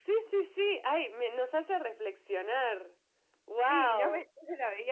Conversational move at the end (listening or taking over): taking over